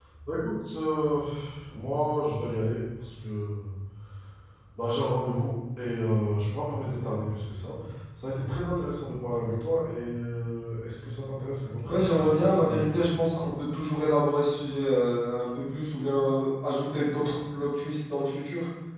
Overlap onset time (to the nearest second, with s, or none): 12 s